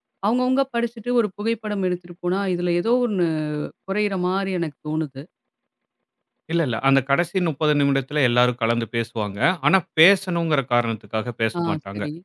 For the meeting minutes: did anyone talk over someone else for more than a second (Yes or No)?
No